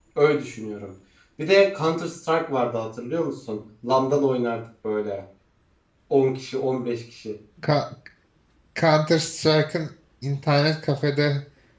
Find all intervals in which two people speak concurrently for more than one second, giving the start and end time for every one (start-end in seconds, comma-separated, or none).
none